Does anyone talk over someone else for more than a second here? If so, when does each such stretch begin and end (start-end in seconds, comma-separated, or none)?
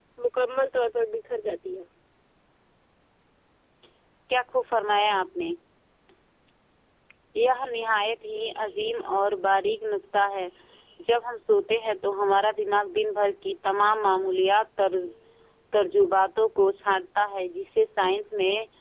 none